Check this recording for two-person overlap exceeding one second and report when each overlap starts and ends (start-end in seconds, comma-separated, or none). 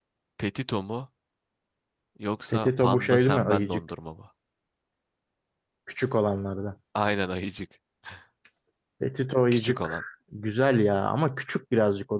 2.5-3.8